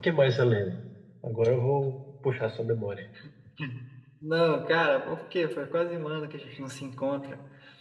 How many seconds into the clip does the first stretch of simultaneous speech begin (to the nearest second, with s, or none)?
none